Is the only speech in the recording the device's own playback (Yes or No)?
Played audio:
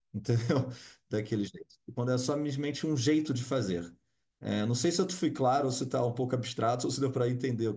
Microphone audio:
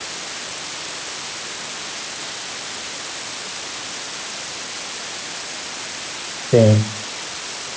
No